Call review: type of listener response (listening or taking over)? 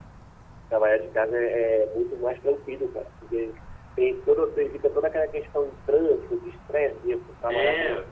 taking over